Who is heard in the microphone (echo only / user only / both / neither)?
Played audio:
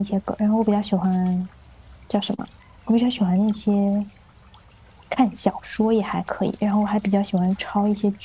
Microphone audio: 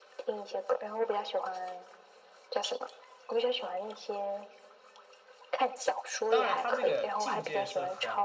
both